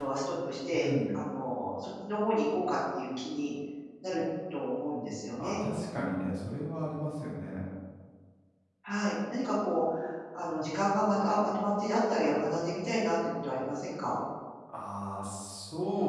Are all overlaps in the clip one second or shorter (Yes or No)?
Yes